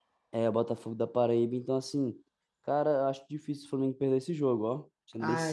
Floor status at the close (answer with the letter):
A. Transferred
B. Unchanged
A